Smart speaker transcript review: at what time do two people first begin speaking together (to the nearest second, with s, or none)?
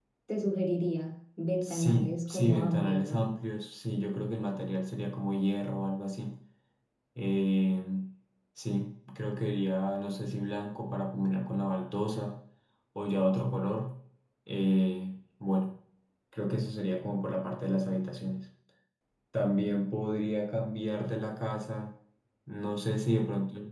2 s